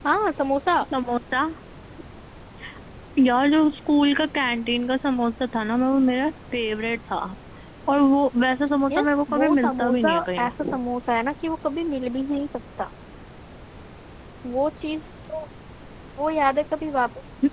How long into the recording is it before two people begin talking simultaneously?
8.9 s

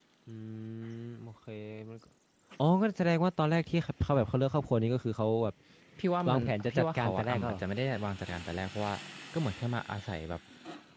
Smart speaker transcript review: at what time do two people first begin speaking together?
6.3 s

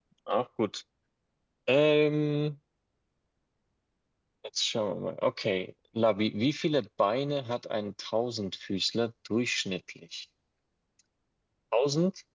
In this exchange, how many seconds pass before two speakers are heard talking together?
none

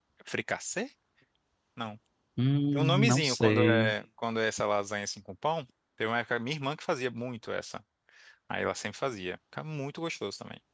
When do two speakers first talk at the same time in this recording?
2.7 s

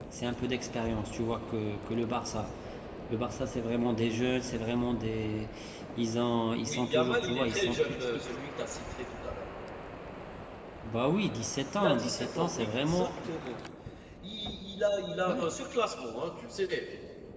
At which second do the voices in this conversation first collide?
6.6 s

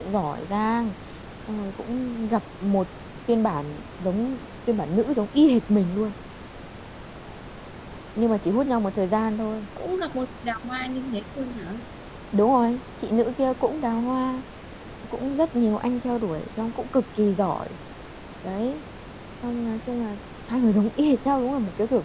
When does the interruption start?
none

